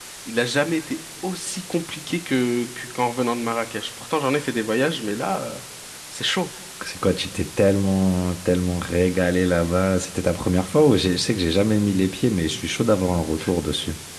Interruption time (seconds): none

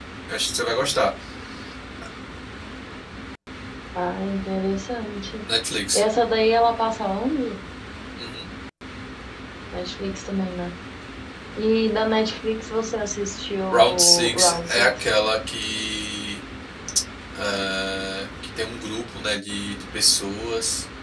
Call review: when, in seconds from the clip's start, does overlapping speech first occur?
14 s

